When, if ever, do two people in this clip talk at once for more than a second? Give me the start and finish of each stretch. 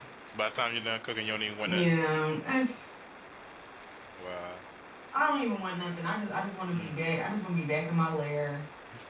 none

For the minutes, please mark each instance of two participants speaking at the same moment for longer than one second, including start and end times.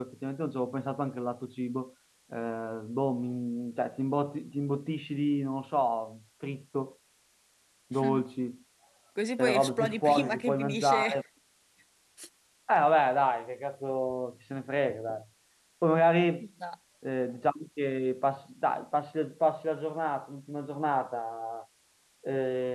9.4-11.2

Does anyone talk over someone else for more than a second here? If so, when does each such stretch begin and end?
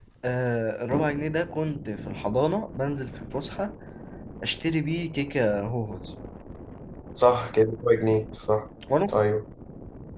none

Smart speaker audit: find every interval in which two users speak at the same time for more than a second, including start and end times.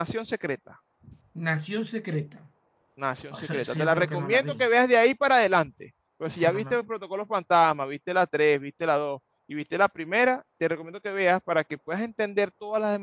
3.3-4.6

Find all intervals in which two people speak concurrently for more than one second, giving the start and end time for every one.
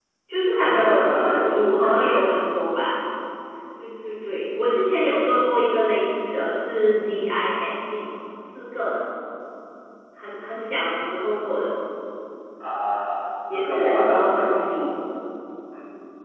0.5-2.2, 13.5-14.8

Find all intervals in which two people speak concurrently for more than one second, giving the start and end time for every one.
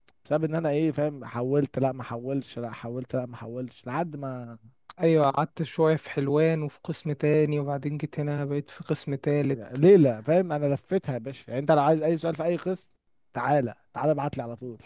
none

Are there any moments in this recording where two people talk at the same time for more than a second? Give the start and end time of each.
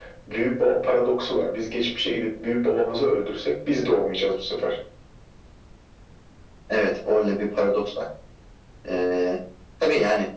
none

